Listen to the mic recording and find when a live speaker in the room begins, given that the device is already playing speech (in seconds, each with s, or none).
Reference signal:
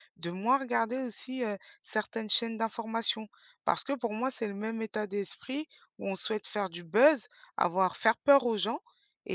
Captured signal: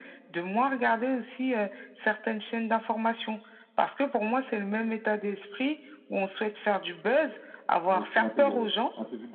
7.9 s